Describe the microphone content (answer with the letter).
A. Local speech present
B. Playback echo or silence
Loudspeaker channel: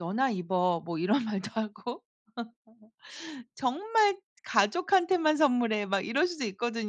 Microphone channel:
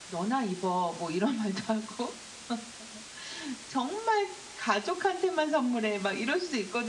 B